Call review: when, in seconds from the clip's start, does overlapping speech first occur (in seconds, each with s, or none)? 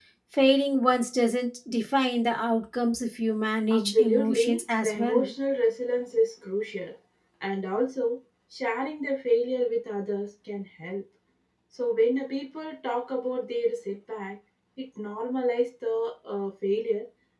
3.7 s